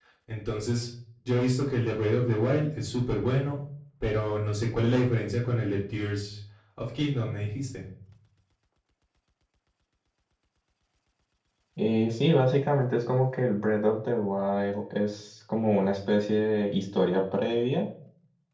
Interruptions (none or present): none